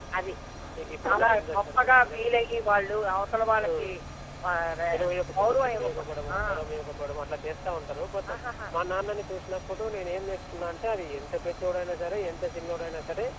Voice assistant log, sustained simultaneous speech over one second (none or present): present